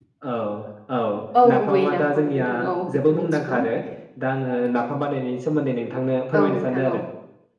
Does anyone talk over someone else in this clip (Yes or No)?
Yes